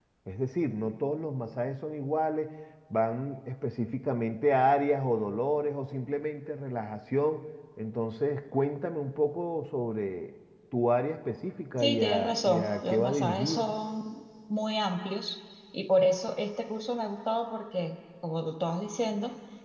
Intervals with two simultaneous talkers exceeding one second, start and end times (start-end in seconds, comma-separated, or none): 11.8-13.7